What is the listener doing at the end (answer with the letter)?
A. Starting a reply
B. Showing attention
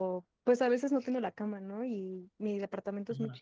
B